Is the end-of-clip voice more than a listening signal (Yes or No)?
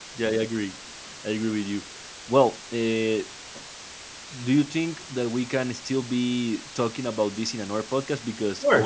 Yes